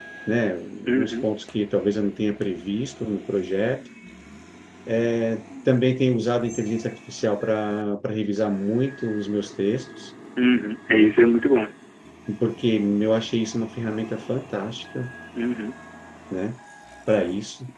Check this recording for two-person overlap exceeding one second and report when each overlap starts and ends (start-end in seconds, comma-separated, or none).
none